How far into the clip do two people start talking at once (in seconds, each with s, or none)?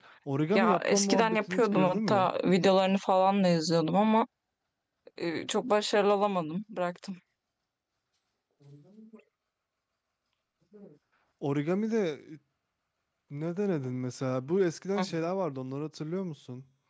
0.5 s